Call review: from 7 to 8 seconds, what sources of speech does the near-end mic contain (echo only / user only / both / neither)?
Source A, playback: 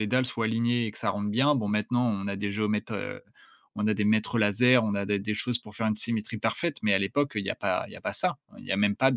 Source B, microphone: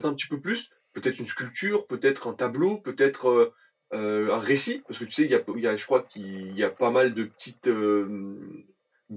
user only